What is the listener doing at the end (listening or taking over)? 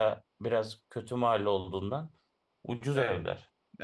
taking over